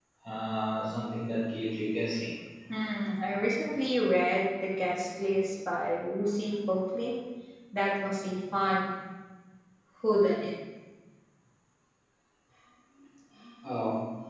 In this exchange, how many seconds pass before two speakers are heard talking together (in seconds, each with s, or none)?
none